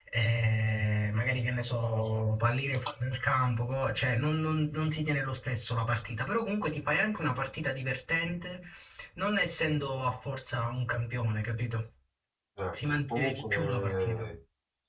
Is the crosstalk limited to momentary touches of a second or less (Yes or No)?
No